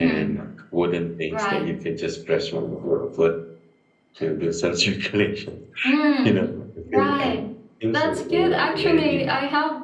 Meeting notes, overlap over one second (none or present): present